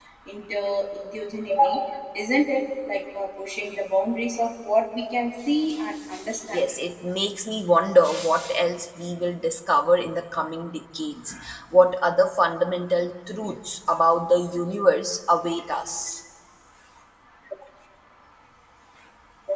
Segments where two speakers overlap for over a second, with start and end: none

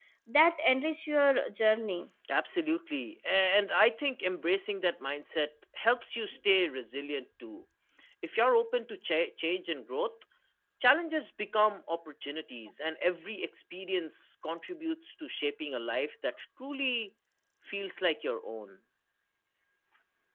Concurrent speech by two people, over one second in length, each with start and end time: none

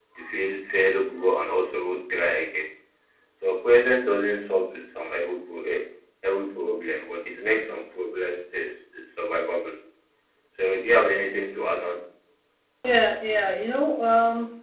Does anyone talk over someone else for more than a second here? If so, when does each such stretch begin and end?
none

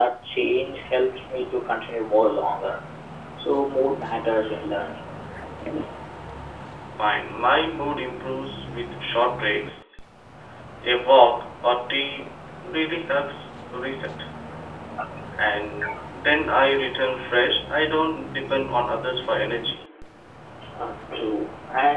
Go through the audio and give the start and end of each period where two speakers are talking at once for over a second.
none

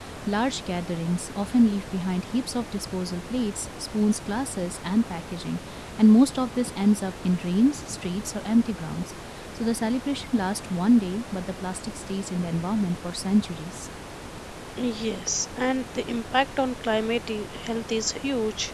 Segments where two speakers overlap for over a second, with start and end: none

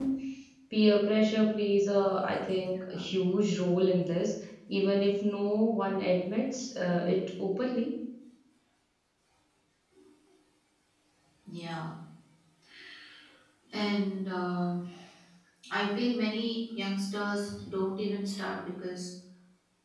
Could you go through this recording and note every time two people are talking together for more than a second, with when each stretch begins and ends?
none

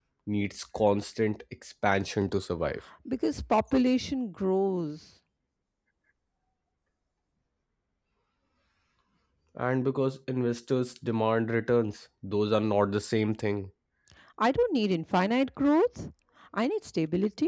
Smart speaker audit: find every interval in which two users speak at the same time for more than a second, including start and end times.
none

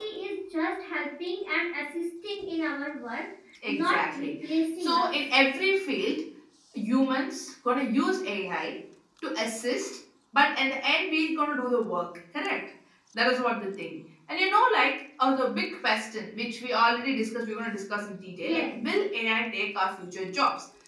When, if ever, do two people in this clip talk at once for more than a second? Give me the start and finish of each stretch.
3.7-5.1

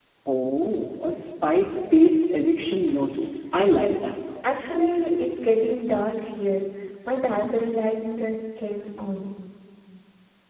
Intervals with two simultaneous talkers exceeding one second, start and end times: none

